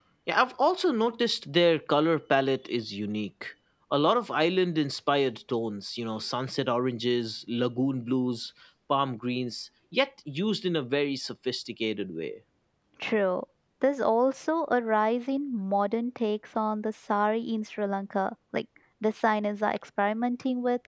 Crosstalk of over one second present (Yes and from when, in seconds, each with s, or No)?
No